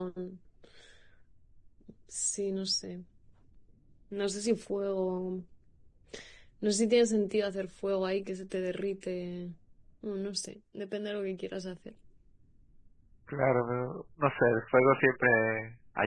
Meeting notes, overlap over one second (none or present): none